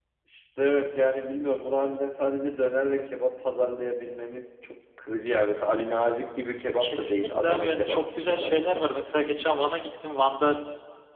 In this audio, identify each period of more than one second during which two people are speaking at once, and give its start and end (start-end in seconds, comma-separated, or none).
6.8-9.0